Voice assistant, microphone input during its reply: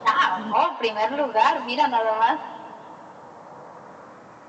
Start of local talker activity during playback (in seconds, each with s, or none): none